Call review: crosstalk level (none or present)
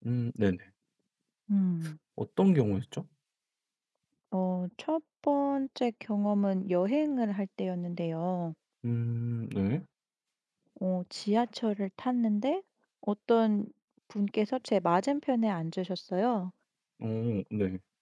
none